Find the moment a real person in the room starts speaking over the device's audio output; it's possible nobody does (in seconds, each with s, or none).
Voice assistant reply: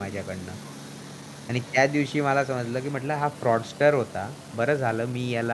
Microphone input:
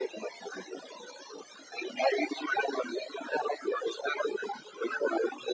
none